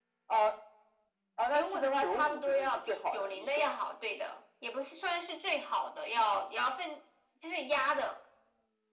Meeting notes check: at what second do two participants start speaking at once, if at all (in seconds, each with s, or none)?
1.5 s